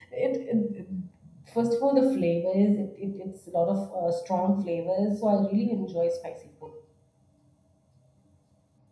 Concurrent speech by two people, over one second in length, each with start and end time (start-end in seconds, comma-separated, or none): none